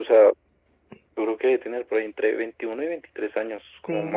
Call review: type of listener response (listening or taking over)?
taking over